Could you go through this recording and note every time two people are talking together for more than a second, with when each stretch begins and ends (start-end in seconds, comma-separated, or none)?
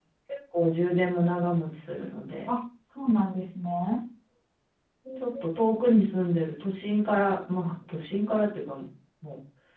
none